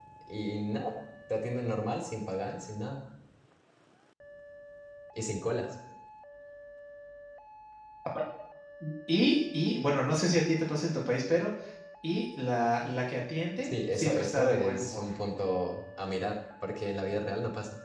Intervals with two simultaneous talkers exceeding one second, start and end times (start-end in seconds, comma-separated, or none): 13.6-15.1